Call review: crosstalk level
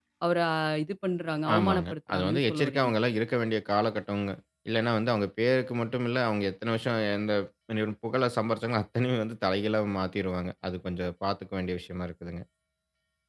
present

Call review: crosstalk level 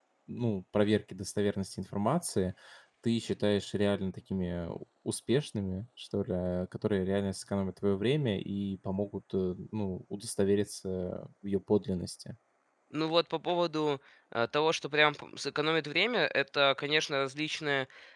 none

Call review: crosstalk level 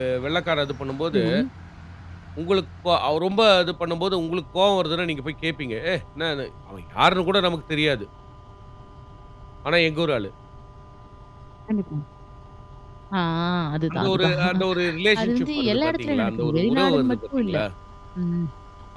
present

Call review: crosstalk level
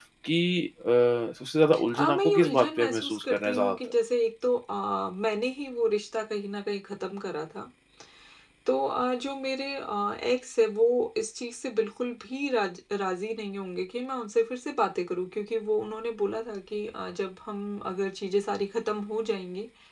present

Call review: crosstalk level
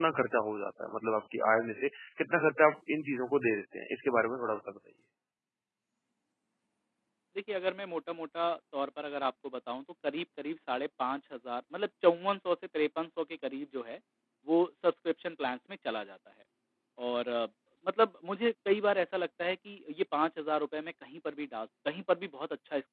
none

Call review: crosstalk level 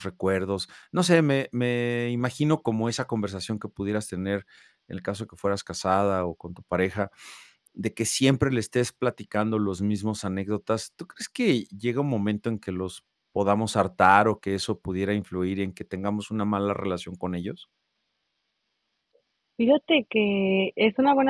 none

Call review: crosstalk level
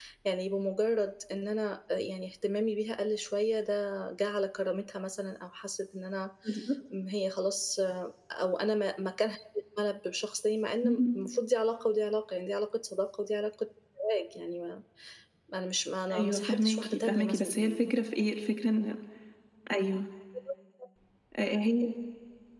present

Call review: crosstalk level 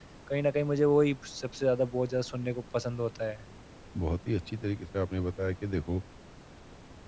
none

